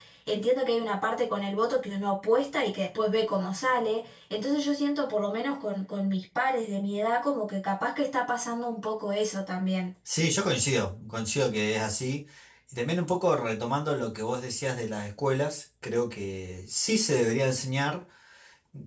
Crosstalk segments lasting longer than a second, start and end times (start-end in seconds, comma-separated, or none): none